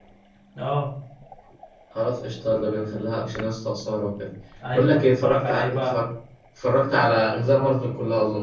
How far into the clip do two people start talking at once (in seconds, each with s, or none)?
4.7 s